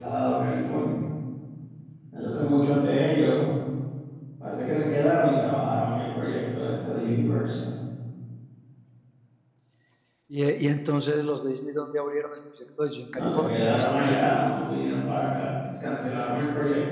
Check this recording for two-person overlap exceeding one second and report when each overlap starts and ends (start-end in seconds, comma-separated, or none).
13.1-14.4